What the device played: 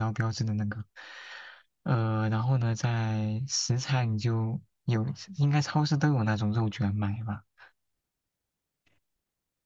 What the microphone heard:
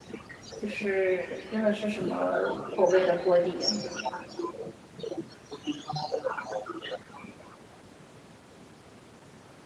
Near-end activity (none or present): present